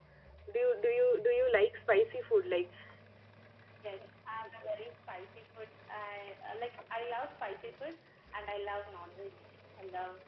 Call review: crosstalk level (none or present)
none